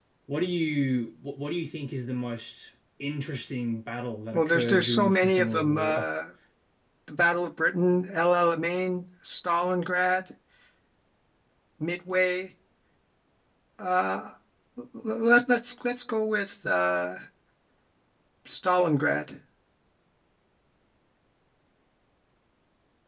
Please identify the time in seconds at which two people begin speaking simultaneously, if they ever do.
4.3 s

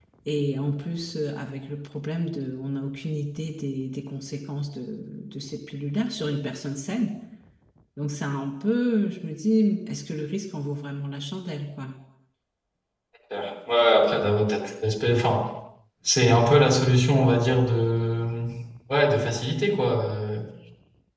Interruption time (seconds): none

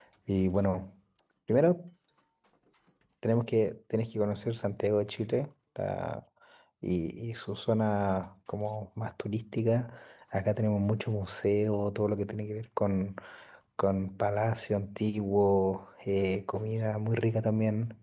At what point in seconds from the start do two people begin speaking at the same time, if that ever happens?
none

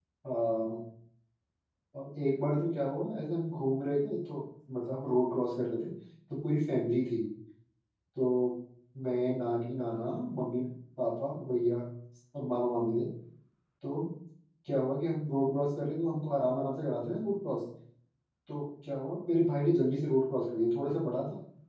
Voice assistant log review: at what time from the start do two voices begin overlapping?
none

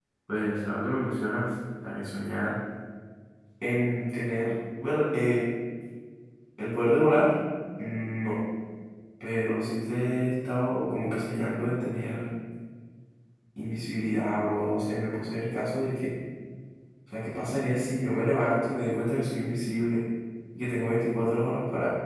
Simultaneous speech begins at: none

